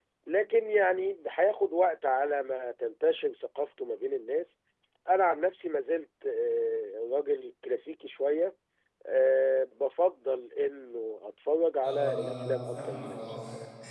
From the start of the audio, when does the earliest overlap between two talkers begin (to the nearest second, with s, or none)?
12 s